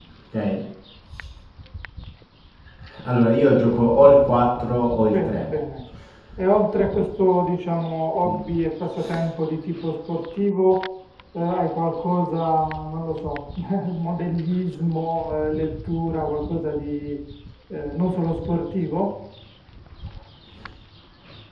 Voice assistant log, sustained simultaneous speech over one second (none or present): none